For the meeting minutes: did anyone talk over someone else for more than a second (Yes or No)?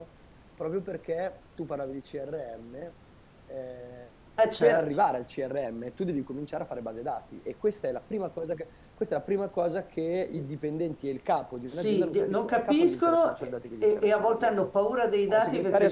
Yes